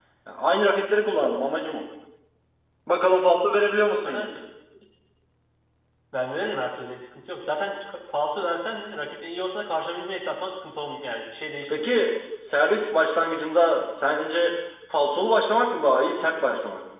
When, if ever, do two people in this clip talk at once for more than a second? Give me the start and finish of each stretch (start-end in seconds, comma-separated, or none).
none